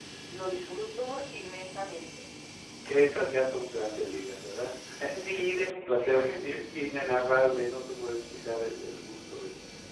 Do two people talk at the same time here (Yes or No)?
Yes